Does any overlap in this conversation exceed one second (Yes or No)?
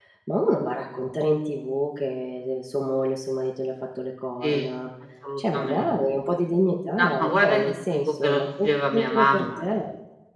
Yes